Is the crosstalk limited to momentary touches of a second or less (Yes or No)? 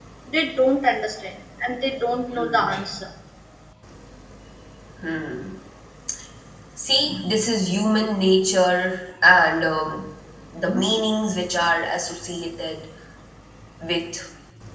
Yes